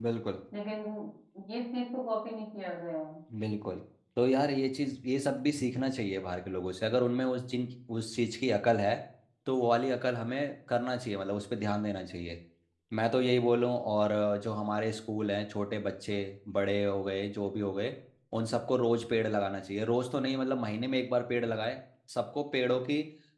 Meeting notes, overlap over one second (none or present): none